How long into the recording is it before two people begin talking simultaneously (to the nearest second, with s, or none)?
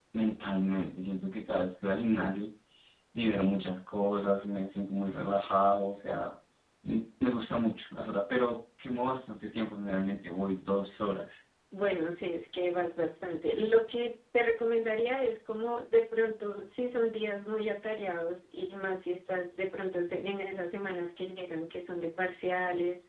none